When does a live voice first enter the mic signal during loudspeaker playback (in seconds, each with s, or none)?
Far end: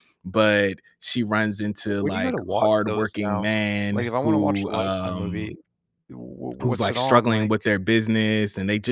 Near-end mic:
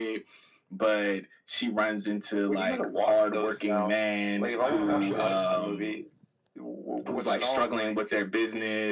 4.5 s